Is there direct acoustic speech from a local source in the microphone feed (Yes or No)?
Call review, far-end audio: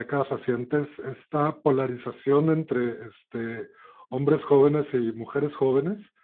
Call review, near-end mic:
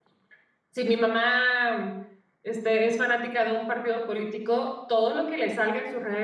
Yes